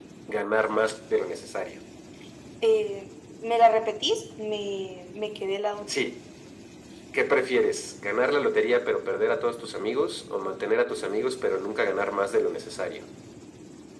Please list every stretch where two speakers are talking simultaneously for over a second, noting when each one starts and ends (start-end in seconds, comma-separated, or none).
none